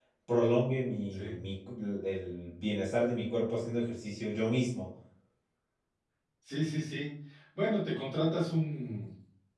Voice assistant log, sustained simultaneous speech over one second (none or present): none